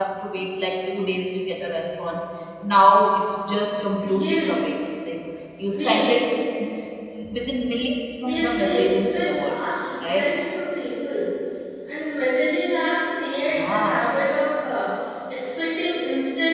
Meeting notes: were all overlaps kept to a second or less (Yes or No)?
No